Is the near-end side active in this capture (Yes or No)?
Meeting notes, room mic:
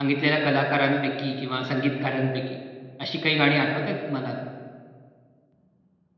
Yes